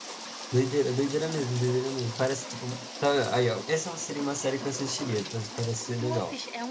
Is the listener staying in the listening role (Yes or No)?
No